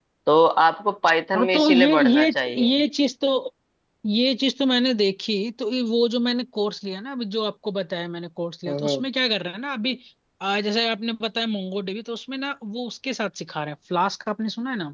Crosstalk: present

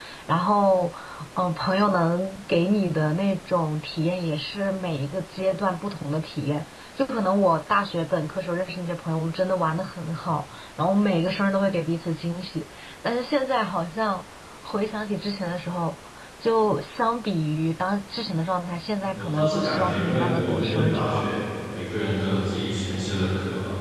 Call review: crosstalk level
present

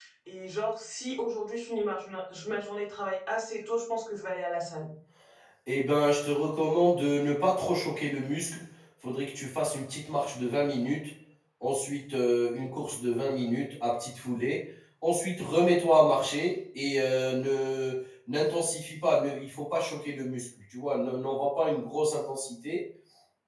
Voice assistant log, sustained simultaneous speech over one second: none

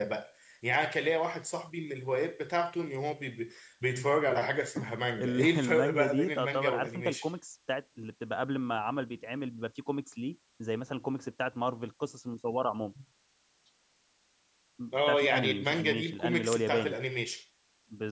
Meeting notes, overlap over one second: present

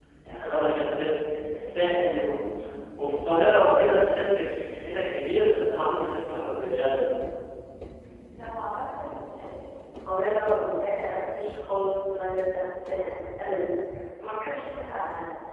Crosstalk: none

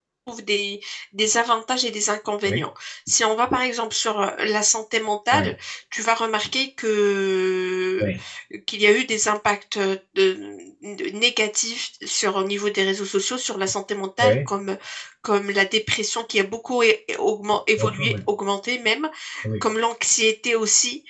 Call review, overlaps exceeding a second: none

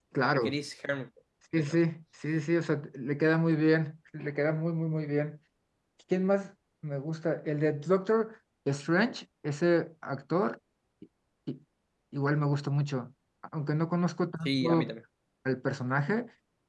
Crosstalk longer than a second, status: none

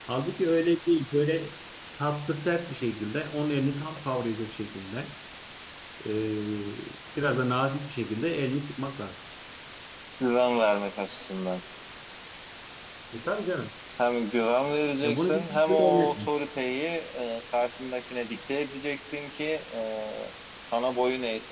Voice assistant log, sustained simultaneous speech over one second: present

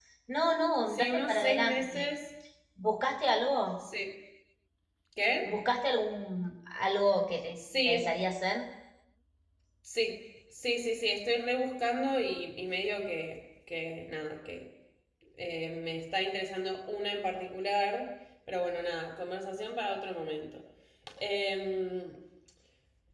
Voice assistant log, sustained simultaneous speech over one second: present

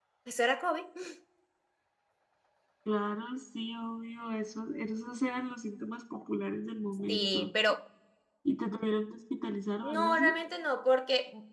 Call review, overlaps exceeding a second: none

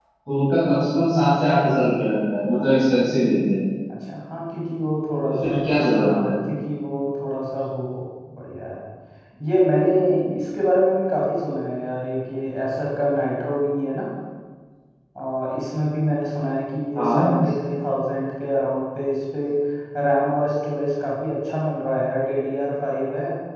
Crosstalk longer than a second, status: none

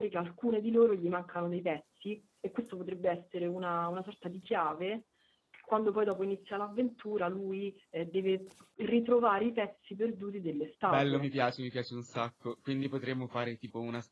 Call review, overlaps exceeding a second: none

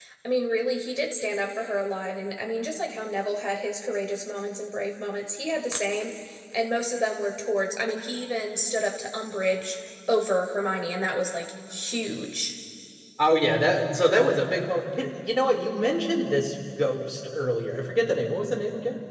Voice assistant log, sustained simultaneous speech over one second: none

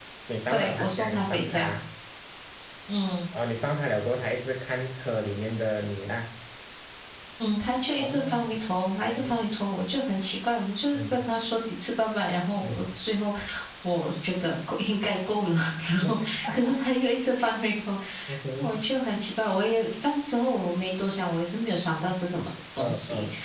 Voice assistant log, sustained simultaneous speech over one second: present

